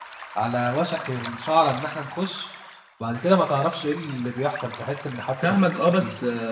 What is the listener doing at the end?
taking over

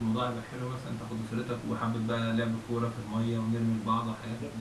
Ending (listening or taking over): taking over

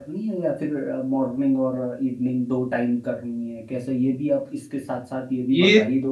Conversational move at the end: taking over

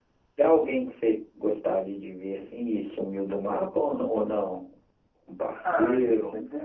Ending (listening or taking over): taking over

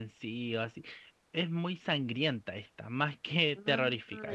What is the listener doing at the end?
listening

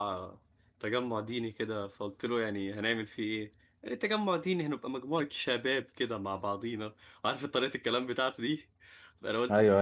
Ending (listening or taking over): listening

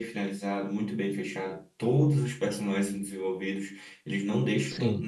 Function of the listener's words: listening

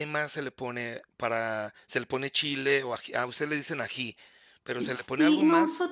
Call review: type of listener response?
taking over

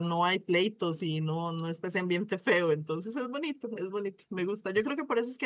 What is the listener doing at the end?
listening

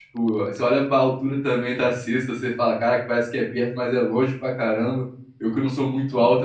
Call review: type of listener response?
listening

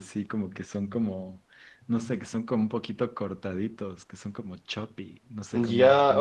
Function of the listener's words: taking over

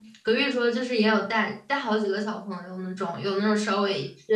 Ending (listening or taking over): listening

